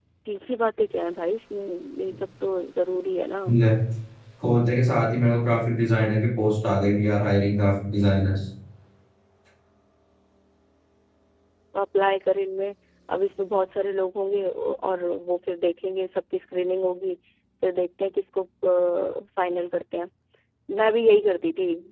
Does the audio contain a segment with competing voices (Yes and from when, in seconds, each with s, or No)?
No